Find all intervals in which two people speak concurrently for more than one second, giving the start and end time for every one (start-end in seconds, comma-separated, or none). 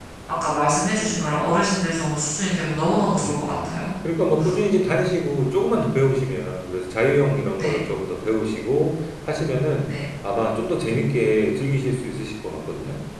none